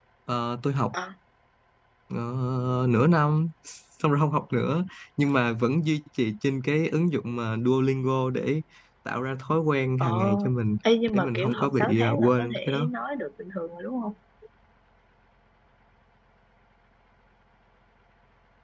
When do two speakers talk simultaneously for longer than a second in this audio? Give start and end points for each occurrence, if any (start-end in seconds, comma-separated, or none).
11.1-12.9